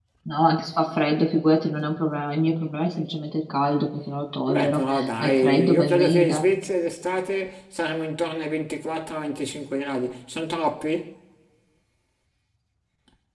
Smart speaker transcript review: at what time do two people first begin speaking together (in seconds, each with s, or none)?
4.5 s